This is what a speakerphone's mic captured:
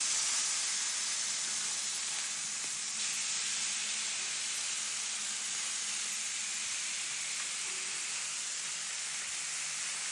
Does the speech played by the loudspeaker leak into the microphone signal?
No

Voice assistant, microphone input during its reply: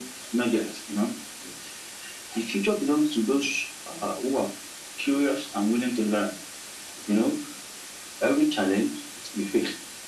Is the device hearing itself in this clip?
Yes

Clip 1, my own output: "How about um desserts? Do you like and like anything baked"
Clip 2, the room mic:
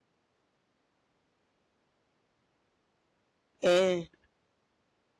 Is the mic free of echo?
Yes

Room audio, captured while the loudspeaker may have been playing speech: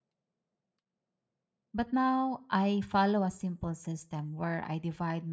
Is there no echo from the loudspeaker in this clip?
Yes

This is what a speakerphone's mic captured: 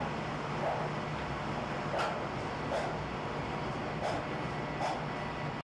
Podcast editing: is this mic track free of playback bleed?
Yes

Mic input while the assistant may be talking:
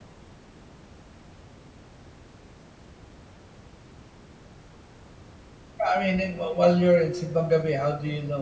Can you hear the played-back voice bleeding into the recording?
No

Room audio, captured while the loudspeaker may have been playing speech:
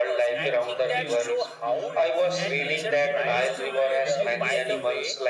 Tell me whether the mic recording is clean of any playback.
No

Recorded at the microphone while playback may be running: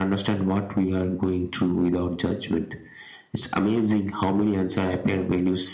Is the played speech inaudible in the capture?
No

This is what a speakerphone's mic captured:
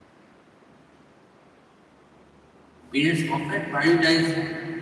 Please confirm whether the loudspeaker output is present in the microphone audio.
No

